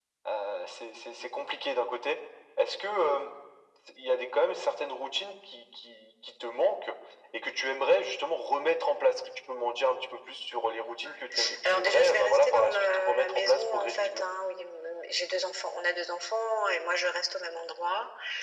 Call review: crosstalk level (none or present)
present